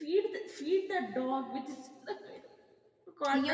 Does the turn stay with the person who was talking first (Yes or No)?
No